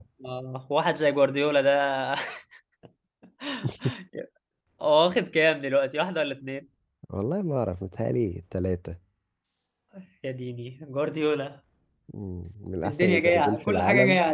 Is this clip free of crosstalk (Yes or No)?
No